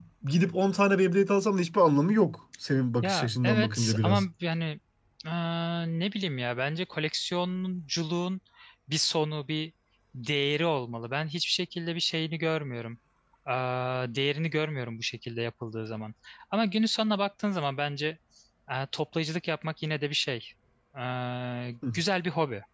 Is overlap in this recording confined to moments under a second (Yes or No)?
No